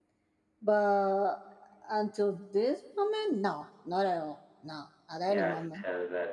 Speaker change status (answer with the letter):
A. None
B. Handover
B